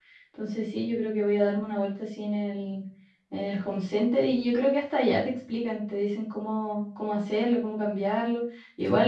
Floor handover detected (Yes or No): No